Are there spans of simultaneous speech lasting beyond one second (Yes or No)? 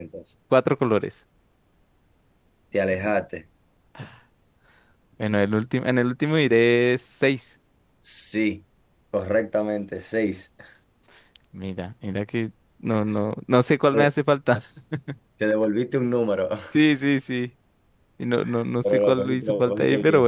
Yes